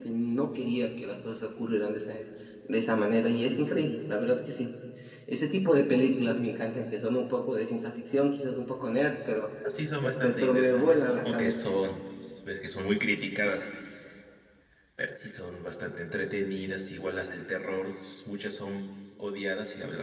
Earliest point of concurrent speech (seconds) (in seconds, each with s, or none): 10.0 s